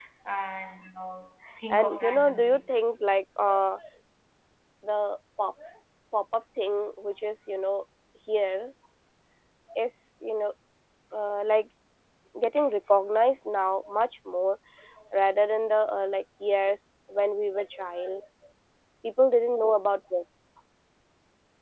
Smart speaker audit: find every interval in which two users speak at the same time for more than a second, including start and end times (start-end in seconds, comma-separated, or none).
1.7-3.0